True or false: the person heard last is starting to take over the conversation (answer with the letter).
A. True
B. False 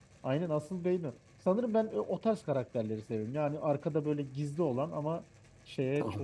A